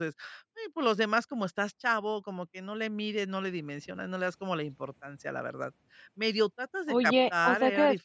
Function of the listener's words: taking over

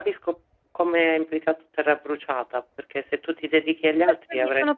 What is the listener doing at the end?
taking over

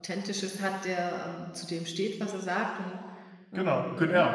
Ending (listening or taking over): taking over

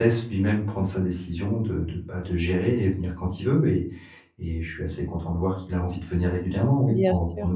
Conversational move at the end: taking over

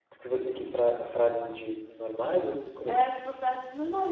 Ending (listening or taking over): taking over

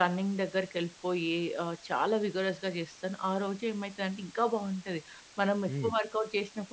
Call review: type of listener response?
listening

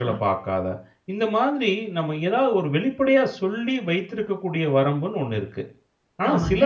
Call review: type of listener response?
listening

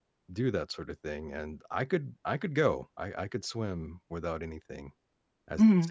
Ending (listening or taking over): taking over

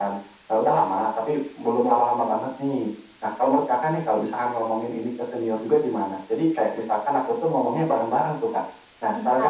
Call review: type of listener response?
taking over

